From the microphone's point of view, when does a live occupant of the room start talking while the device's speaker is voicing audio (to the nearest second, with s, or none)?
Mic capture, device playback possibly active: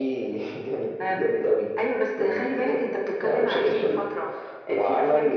none